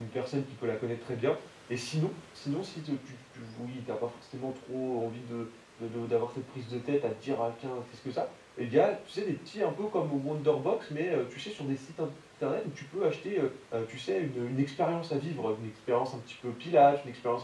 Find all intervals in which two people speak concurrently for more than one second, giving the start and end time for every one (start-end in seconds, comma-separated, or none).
none